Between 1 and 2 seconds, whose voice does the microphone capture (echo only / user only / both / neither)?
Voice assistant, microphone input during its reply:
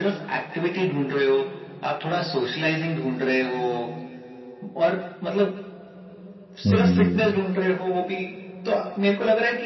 echo only